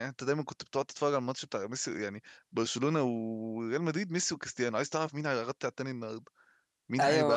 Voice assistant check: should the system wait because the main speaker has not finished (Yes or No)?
No